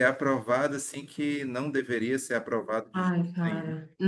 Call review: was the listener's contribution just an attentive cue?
No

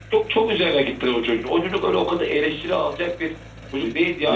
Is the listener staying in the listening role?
Yes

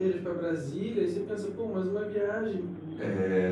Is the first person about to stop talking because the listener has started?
Yes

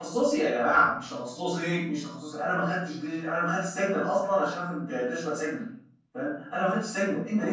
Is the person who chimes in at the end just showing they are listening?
Yes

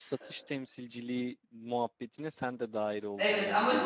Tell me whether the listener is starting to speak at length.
Yes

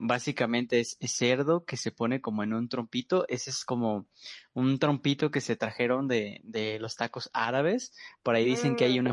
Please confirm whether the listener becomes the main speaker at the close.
No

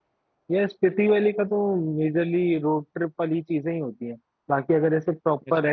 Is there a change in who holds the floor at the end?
No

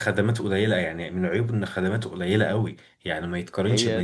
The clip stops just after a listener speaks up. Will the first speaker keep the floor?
Yes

